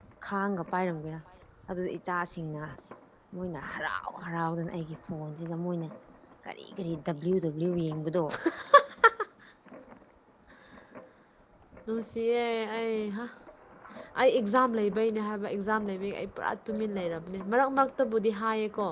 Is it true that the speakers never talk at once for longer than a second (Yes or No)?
Yes